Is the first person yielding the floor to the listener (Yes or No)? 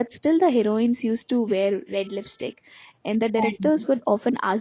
No